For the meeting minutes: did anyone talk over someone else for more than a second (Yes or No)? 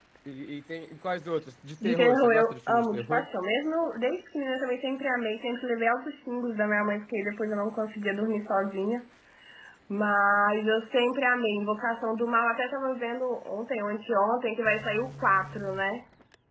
Yes